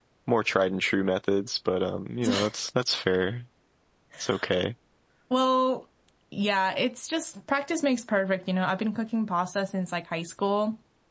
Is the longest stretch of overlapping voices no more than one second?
Yes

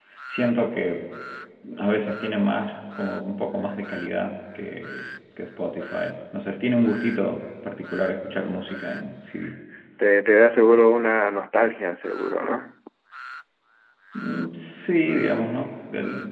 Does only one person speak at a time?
Yes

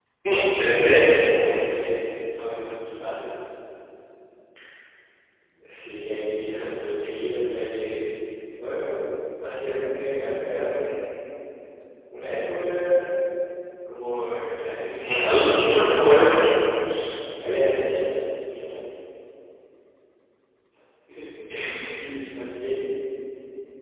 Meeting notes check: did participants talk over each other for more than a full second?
Yes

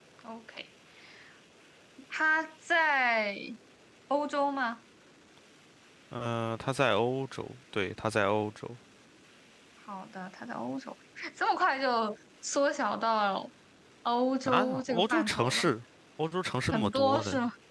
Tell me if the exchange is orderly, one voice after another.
No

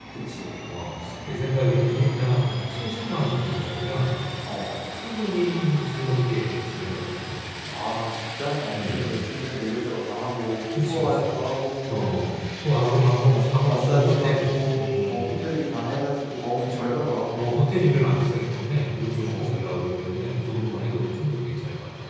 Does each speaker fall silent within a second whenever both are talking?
No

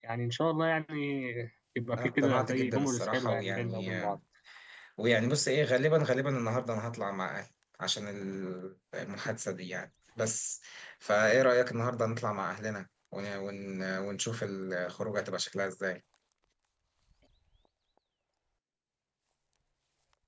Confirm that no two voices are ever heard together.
No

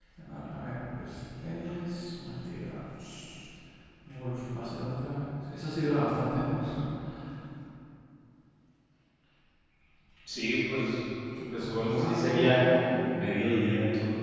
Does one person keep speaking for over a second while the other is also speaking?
Yes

